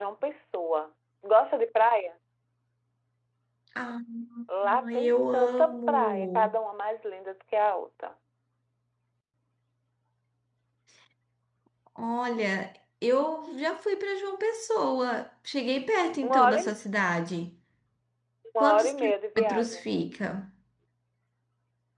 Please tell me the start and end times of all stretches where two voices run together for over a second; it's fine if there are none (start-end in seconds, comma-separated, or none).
4.9-6.6, 18.6-19.8